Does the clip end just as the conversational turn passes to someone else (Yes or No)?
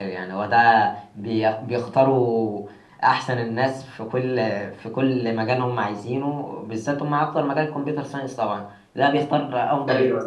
No